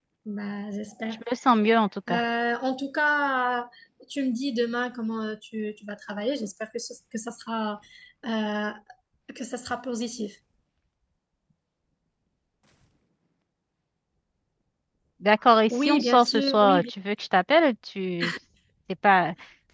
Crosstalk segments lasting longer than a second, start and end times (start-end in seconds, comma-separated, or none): 15.7-16.9